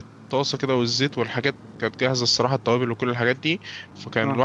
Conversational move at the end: listening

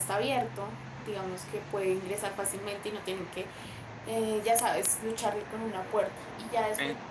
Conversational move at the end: listening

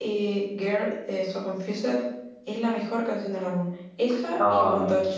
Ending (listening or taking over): taking over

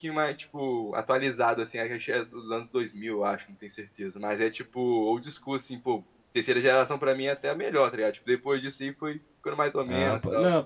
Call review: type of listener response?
taking over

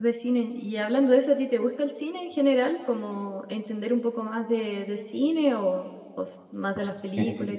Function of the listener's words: taking over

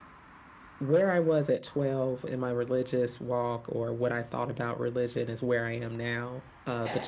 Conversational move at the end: listening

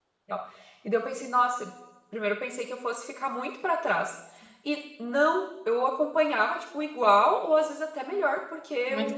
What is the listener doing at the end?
listening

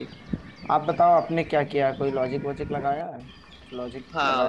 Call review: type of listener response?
taking over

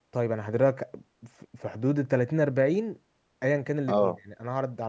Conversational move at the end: listening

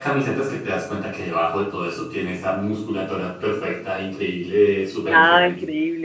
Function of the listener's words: taking over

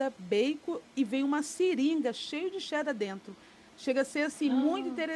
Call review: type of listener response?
listening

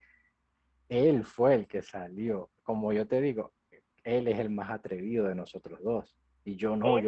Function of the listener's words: listening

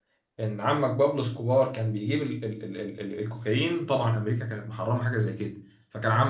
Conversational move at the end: listening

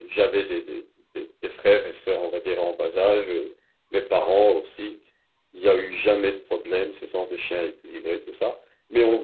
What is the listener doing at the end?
listening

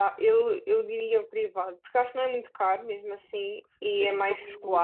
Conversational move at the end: taking over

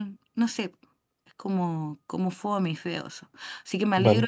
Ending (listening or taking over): listening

